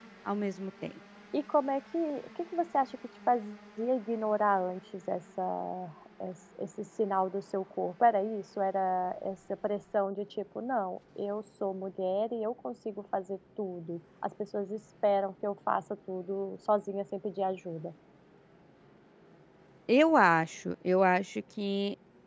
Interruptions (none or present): none